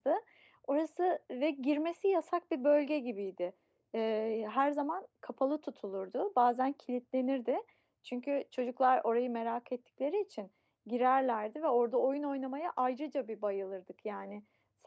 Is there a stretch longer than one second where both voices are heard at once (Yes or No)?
No